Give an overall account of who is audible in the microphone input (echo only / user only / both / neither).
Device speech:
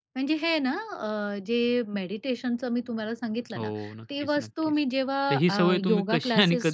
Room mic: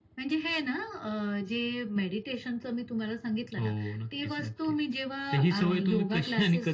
echo only